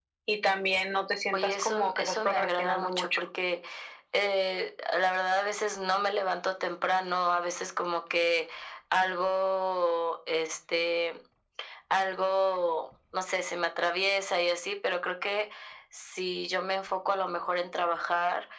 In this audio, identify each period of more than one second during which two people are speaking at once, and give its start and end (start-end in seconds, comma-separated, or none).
1.3-3.2